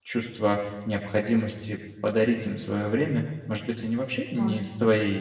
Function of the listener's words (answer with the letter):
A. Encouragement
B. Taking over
A